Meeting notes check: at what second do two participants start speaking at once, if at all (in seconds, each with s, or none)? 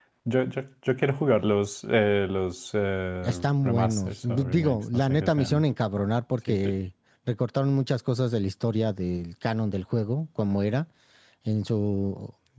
3.2 s